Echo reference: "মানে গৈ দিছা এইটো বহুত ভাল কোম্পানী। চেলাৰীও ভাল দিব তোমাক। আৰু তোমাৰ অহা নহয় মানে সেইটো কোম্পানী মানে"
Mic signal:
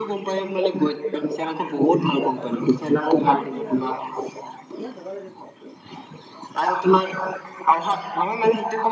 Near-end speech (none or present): present